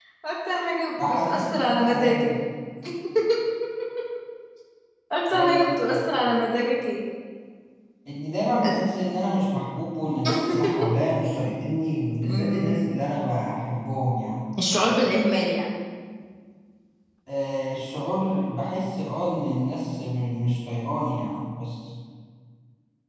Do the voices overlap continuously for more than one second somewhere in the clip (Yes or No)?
Yes